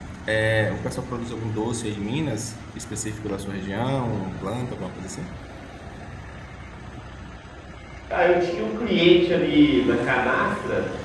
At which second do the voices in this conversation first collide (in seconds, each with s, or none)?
none